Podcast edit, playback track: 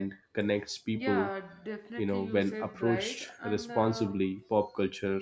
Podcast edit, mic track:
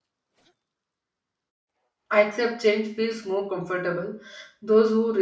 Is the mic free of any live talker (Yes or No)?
No